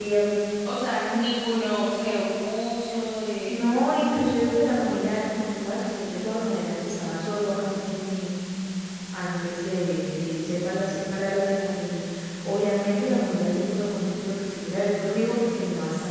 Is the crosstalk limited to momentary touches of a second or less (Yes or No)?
Yes